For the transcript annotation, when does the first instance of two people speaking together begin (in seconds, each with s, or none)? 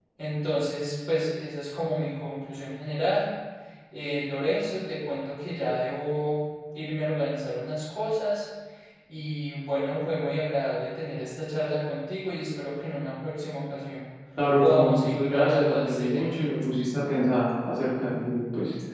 14.6 s